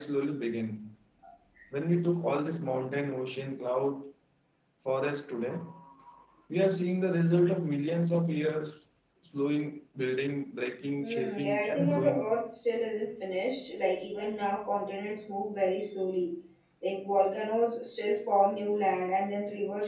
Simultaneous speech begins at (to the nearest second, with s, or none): 11 s